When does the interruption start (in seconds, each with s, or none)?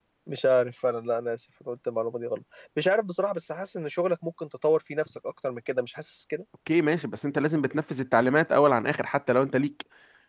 none